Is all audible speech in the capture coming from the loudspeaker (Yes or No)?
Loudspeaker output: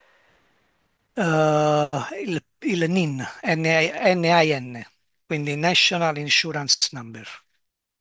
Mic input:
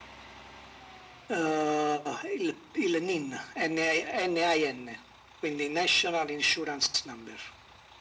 Yes